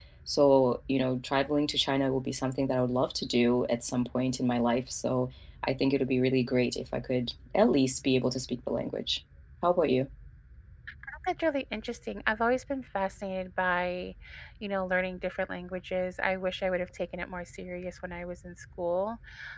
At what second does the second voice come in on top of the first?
none

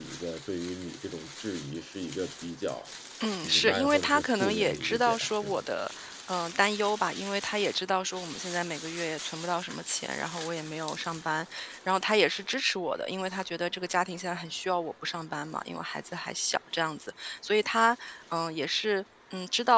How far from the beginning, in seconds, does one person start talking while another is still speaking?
3.4 s

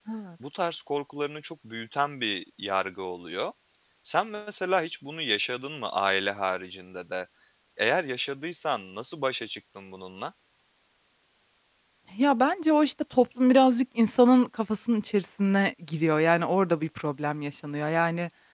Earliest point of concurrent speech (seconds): none

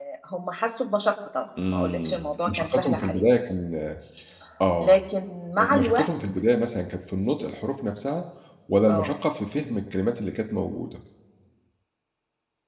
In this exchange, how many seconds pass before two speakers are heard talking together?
1.7 s

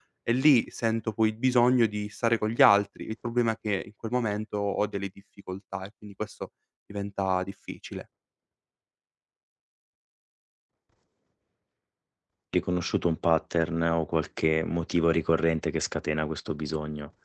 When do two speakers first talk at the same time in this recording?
none

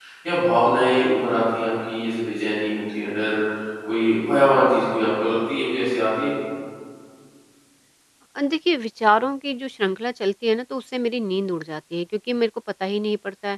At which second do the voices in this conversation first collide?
none

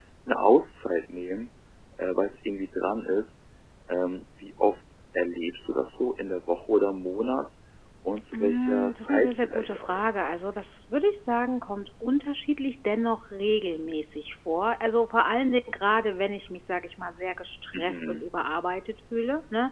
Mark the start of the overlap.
8.3 s

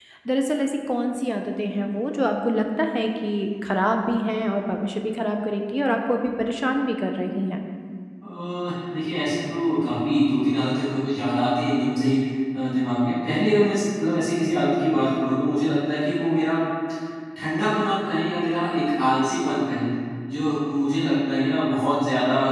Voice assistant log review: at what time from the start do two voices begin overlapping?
none

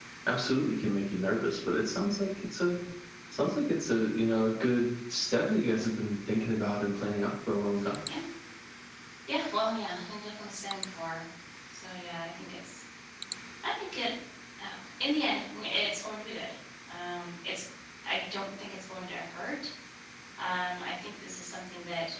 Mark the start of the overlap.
none

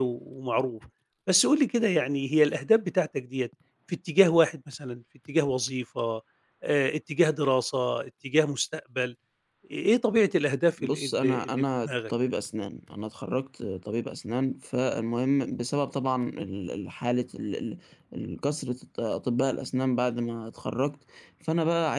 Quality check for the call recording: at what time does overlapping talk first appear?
10.8 s

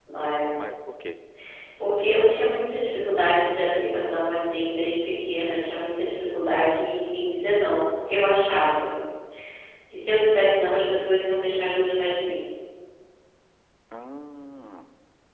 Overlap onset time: none

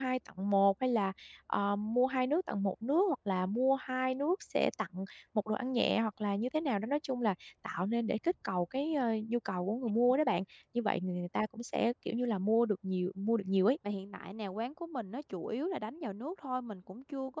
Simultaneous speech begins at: none

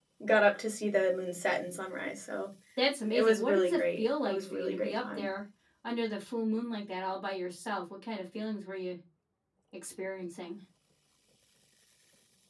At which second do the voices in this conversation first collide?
3.1 s

